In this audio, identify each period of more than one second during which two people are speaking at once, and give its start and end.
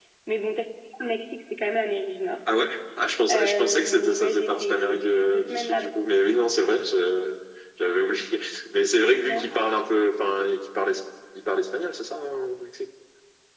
3.3-5.9

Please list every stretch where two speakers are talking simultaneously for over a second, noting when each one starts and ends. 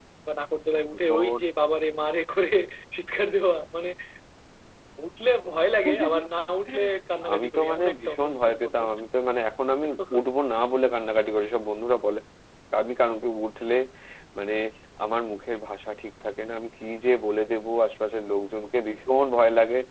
7.3-8.9

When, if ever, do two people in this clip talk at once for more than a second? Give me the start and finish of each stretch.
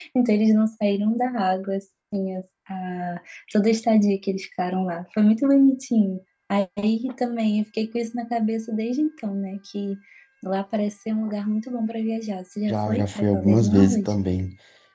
12.7-14.1

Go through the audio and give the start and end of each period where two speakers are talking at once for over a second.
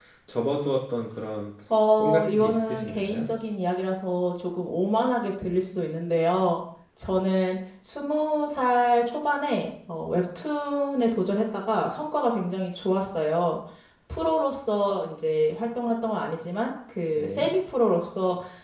2.0-3.2

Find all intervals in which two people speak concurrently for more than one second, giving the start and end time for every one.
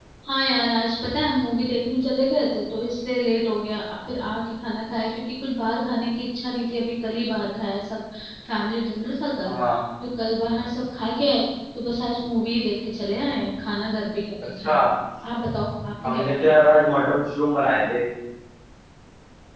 none

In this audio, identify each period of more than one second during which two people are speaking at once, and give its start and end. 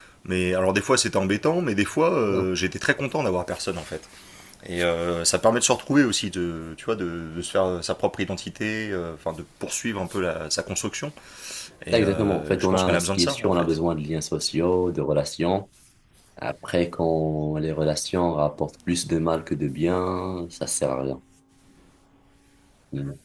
11.9-13.8

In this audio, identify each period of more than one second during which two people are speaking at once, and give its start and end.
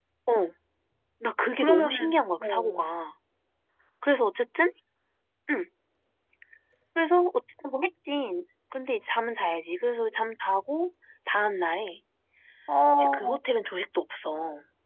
1.6-2.8

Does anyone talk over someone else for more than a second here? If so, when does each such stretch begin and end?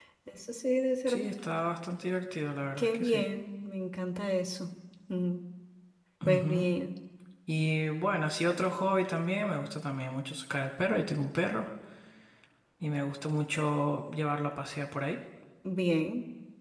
none

